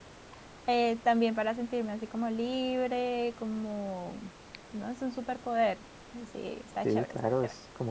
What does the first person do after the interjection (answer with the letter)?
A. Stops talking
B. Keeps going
A